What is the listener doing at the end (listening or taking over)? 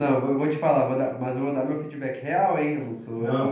taking over